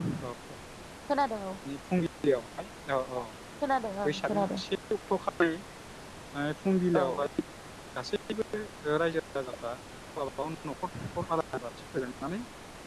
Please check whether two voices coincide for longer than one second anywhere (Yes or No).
No